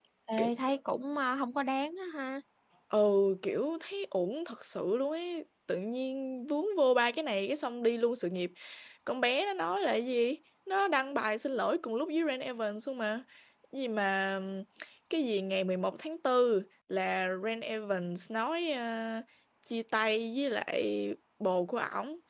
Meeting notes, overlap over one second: none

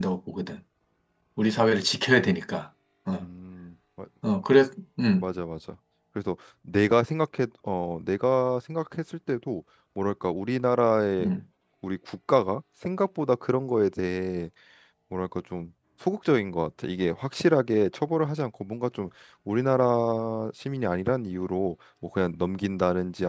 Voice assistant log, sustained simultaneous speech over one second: none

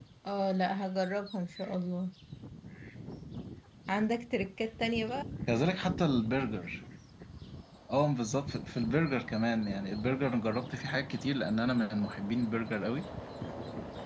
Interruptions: none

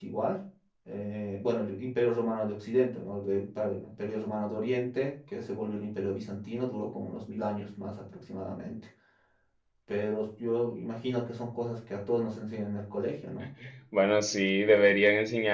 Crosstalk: none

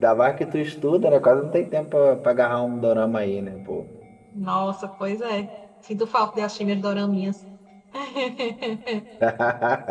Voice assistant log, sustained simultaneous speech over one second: none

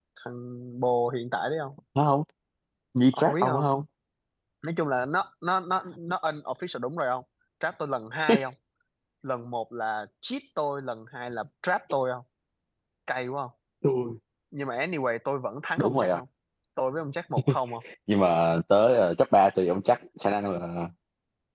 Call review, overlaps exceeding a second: none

